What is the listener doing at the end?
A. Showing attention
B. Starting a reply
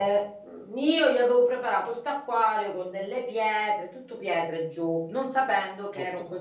A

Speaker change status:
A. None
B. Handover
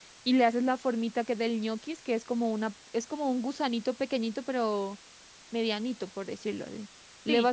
A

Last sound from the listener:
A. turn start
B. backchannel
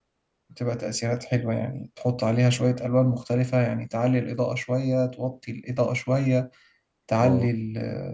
B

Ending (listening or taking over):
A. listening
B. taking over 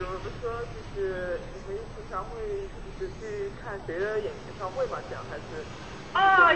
B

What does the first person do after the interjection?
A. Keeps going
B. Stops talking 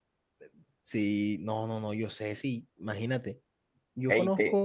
A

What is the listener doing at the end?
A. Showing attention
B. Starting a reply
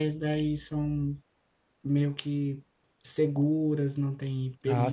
B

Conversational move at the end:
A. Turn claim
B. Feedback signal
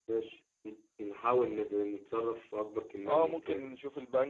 A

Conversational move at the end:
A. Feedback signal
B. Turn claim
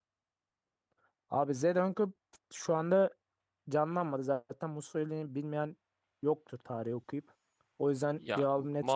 B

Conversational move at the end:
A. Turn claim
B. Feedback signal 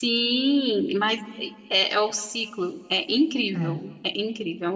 B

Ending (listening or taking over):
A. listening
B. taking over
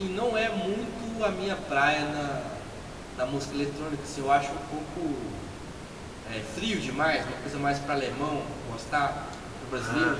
B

